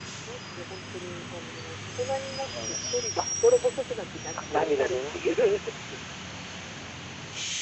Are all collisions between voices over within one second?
No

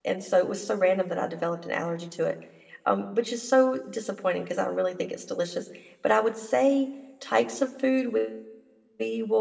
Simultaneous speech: No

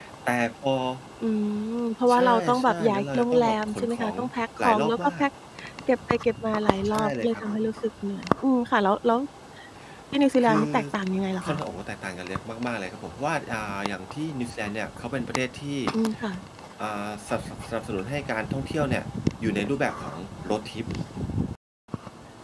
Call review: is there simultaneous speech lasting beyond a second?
Yes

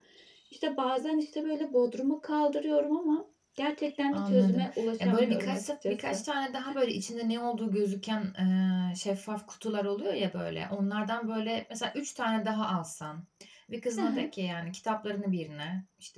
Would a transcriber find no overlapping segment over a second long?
No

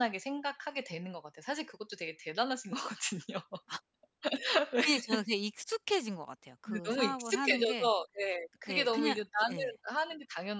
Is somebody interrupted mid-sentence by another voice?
Yes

